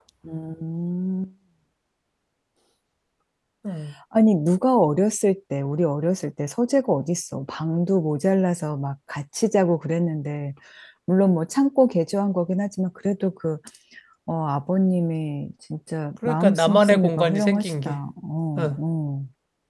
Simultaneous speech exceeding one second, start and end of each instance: 16.2-18.0

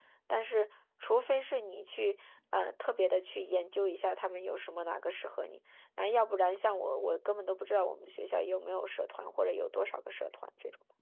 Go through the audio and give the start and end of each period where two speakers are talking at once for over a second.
none

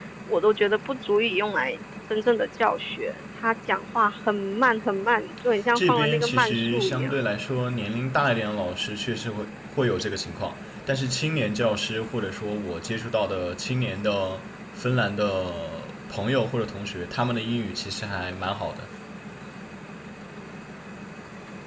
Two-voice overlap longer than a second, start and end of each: 5.8-7.2

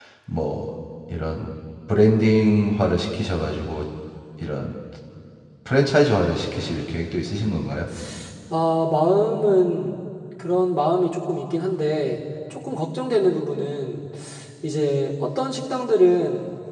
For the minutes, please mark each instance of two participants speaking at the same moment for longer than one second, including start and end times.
none

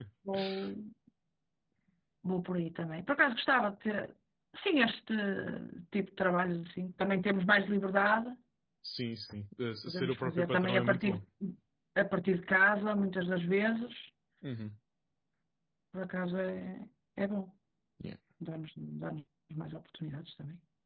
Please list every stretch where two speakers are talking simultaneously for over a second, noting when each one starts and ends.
9.9-11.2

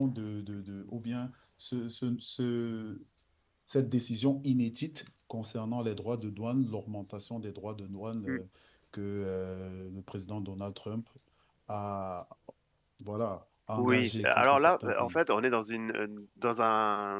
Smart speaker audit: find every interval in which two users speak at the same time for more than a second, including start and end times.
13.8-15.2

